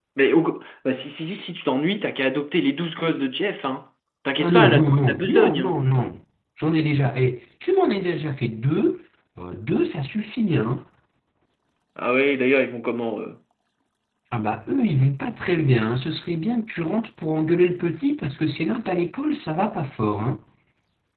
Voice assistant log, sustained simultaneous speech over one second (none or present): present